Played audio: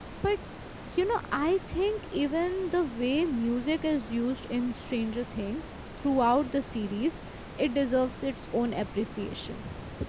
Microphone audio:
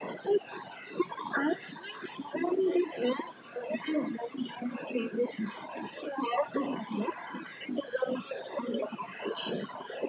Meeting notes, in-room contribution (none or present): none